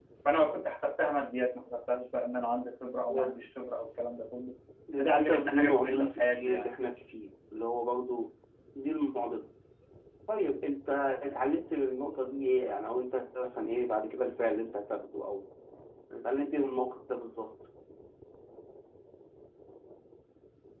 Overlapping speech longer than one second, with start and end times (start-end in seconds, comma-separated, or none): 5.0-6.7